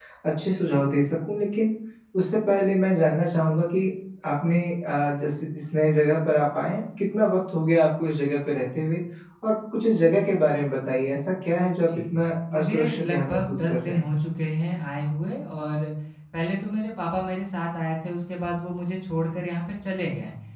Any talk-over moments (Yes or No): Yes